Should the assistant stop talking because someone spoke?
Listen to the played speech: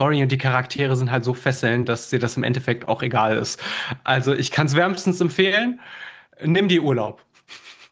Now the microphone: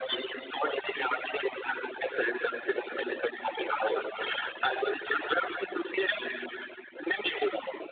No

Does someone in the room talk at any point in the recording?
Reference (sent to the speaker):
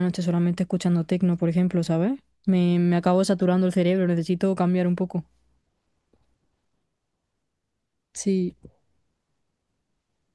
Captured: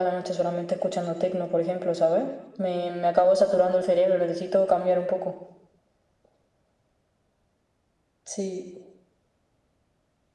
No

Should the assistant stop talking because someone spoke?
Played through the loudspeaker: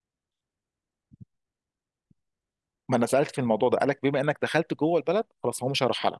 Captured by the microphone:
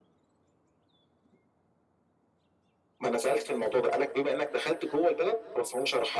No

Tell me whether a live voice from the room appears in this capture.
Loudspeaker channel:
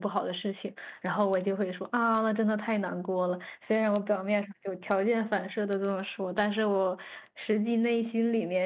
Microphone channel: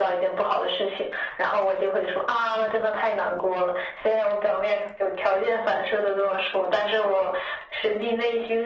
No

